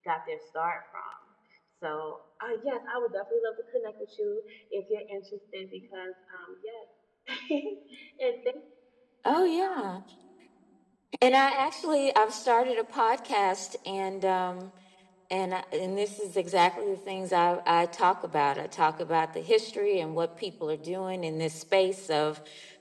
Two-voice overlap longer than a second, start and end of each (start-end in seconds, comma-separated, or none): none